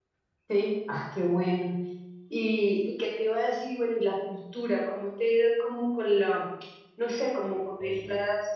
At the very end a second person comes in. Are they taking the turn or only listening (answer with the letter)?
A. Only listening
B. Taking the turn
A